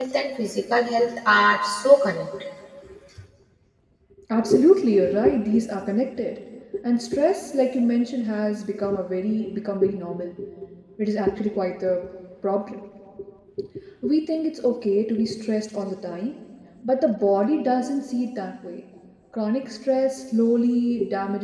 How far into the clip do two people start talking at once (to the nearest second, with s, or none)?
none